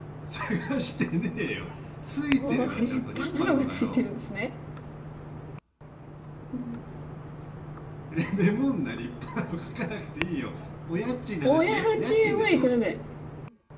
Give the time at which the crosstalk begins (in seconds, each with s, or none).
2.3 s